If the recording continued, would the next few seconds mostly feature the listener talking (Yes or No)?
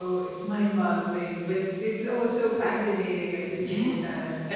Yes